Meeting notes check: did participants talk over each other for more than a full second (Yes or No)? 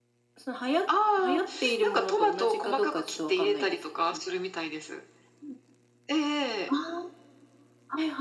Yes